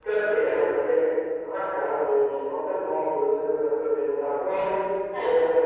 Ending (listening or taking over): listening